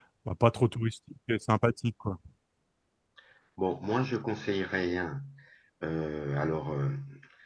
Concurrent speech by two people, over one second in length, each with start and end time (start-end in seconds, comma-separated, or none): none